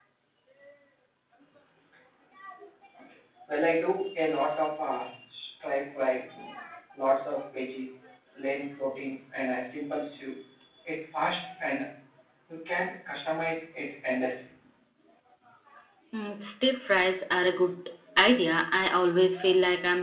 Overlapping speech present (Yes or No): No